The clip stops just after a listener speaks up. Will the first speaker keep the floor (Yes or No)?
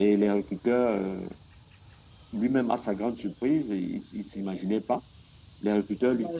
Yes